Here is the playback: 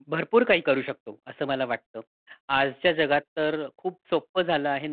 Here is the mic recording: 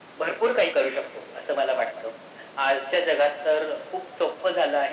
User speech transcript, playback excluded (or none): none